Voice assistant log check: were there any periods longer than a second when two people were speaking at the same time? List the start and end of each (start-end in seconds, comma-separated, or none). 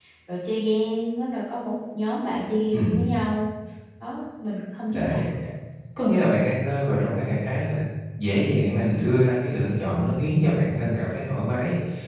none